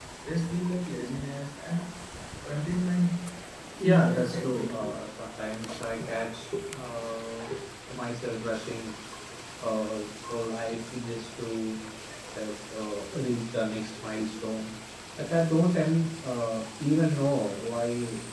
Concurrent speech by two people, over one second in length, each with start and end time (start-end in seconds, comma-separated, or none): 3.8-5.1